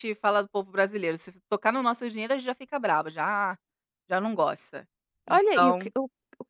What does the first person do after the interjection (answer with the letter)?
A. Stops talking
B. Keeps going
A